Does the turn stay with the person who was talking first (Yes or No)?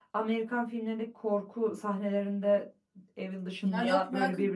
No